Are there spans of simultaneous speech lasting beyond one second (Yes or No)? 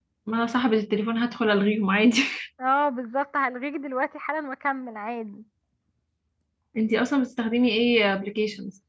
No